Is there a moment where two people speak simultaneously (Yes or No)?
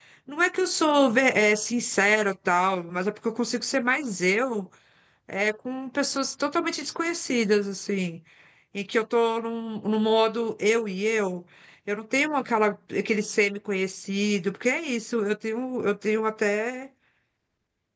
No